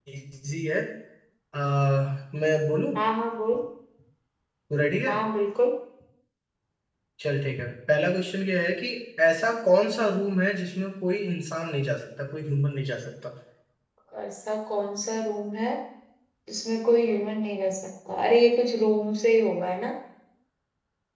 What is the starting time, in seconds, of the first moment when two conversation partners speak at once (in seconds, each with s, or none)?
none